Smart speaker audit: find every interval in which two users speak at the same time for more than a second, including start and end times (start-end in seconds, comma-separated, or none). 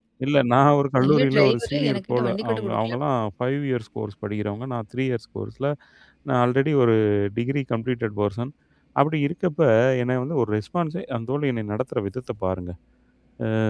1.0-3.0